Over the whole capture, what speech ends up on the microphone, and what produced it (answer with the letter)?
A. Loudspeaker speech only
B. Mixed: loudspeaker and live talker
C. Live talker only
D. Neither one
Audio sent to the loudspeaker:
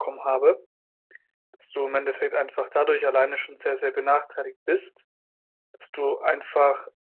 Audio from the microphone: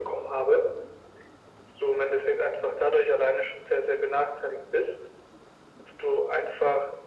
A